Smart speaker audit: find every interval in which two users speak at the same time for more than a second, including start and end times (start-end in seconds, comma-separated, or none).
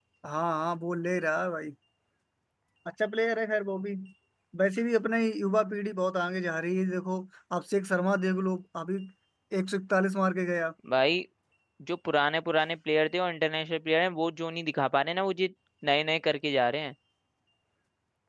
none